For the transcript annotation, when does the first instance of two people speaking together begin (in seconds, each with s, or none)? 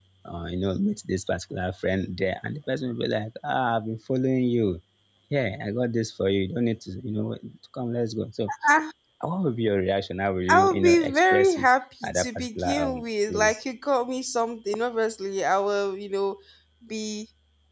10.5 s